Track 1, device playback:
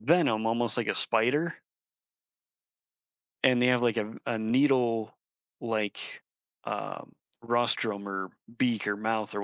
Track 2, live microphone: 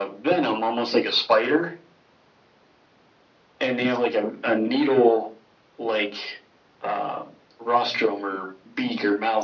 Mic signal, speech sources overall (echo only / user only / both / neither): echo only